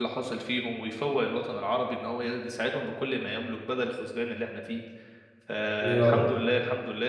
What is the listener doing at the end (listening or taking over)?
listening